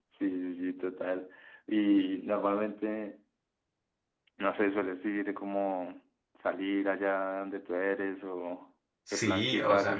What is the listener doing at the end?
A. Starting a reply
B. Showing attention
A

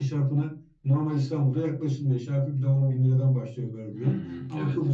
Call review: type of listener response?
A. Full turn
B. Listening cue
B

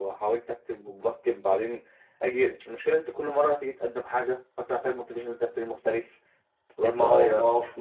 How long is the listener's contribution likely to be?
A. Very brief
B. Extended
B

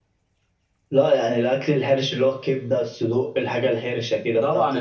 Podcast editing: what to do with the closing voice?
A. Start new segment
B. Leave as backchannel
A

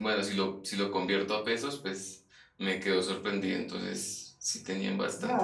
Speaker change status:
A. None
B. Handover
B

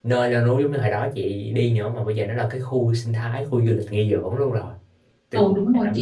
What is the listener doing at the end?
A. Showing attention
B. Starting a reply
B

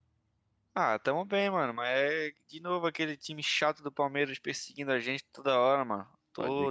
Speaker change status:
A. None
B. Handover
A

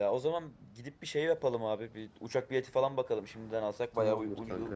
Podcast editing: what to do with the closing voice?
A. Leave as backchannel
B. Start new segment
B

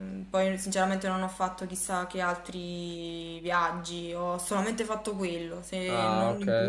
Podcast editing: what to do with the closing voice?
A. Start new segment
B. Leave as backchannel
B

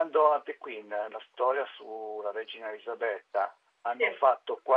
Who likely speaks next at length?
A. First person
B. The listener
A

